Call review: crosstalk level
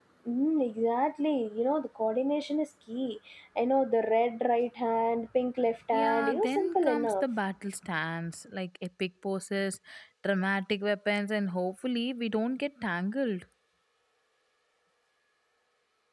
present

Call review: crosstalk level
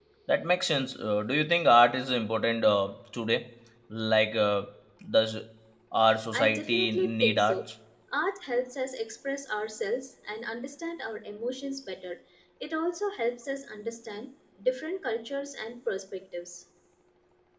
present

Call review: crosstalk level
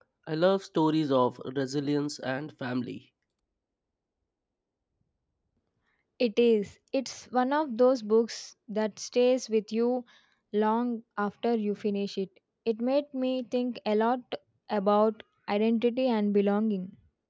none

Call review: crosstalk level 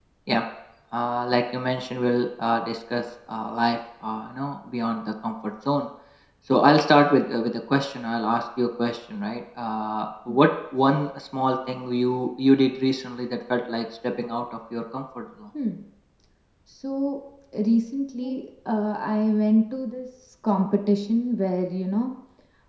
none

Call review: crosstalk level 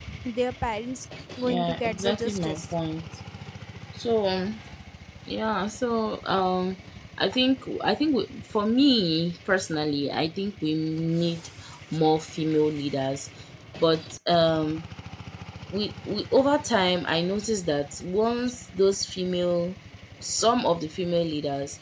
present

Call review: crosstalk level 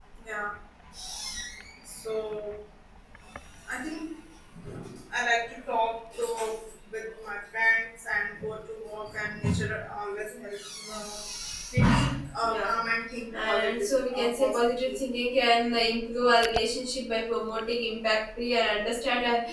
present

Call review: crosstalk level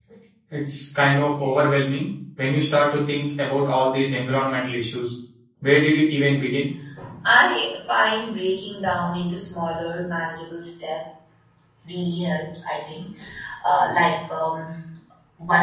none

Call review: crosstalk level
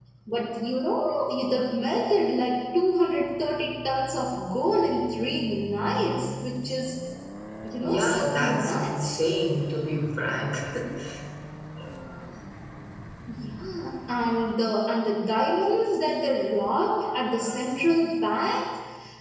present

